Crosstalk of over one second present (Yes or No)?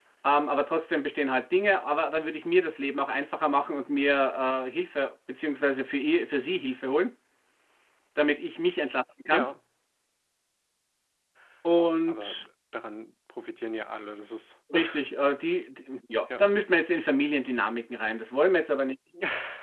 No